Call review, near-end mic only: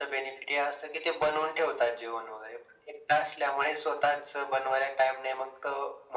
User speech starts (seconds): none

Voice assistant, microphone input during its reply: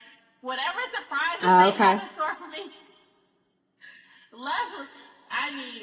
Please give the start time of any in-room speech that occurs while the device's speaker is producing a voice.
1.4 s

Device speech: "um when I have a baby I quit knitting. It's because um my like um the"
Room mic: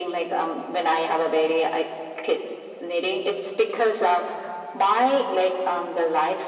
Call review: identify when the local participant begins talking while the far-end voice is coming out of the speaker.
none

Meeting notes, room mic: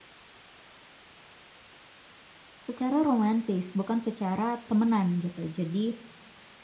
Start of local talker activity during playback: 2.6 s

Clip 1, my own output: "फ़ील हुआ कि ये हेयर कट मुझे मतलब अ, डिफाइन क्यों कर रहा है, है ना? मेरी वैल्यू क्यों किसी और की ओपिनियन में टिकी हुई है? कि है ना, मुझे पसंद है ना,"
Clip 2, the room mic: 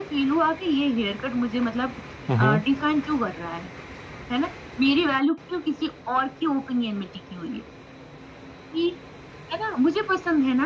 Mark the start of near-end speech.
2.3 s

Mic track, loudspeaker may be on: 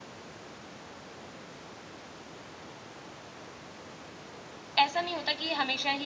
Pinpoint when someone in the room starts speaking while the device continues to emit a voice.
4.8 s

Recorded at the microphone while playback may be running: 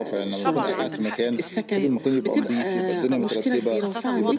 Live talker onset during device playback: 0.4 s

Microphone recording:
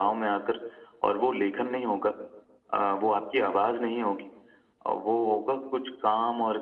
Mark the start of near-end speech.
none

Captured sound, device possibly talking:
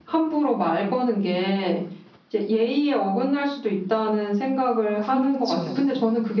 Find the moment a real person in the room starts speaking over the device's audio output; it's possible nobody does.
4.9 s

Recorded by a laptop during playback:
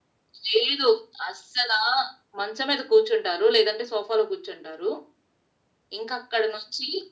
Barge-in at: none

